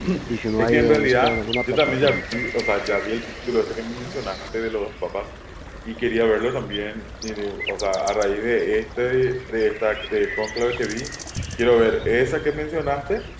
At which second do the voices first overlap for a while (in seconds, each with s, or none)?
0.6 s